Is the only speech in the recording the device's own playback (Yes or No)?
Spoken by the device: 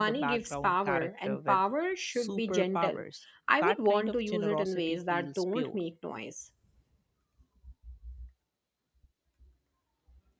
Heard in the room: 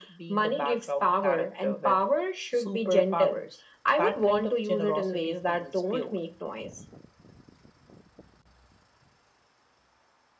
Yes